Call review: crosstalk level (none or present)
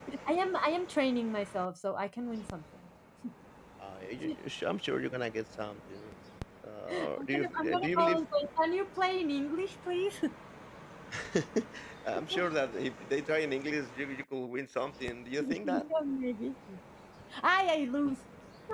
present